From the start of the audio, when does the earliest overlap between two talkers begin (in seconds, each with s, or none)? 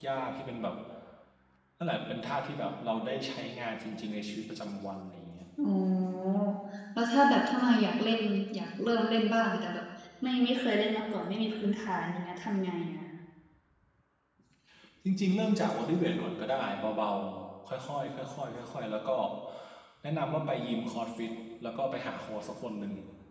none